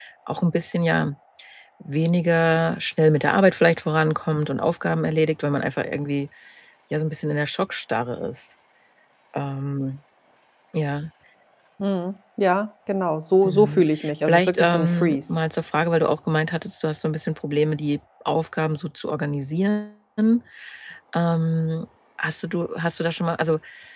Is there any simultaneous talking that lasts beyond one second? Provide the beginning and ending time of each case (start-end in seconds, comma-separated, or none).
13.4-15.4